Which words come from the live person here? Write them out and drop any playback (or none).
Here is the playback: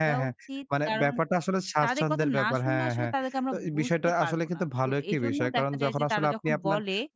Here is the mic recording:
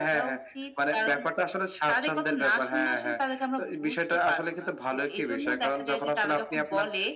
none